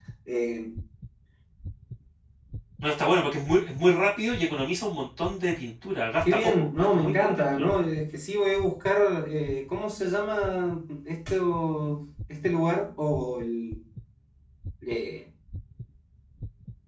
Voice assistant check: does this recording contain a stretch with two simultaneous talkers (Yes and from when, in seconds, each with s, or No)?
Yes, from 6.2 s